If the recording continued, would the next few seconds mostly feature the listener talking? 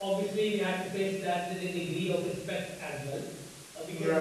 No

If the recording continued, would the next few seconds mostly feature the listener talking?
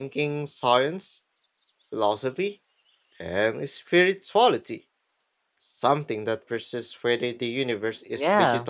Yes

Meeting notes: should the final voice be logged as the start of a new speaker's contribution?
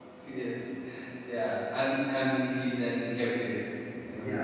Yes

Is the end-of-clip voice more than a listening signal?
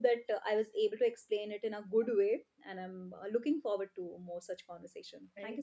Yes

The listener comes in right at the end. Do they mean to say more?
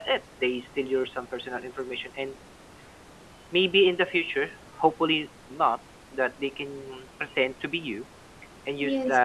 No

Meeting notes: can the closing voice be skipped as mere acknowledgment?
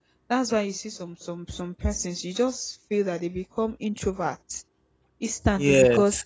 Yes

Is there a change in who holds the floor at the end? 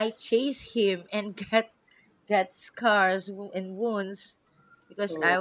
No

